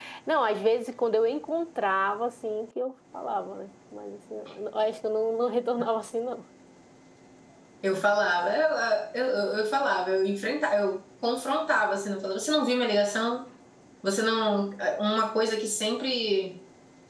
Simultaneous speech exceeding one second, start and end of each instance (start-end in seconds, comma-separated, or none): none